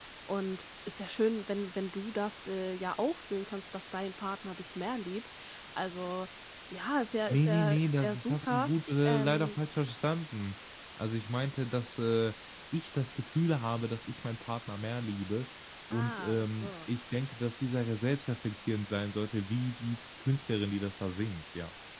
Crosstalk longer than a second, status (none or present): present